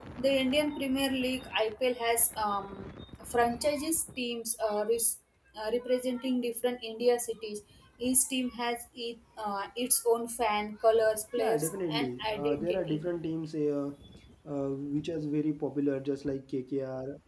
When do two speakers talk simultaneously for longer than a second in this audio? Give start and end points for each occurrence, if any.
11.4-13.0

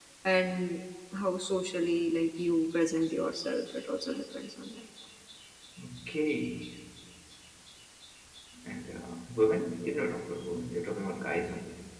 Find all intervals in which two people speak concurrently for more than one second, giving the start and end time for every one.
none

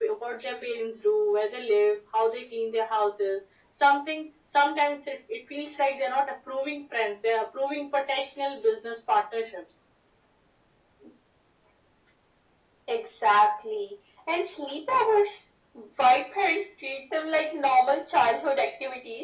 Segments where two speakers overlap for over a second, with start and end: none

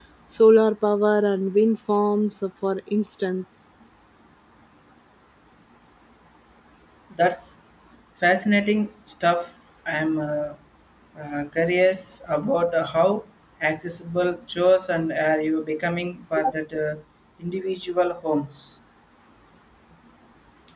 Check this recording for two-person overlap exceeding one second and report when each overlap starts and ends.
none

